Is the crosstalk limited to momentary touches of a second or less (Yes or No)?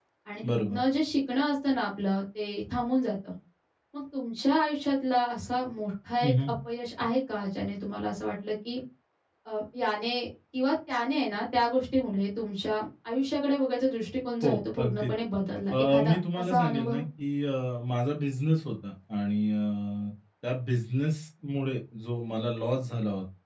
No